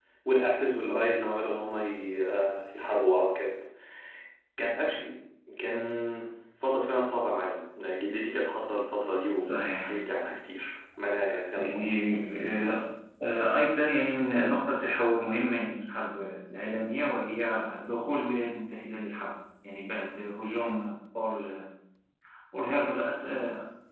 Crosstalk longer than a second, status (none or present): none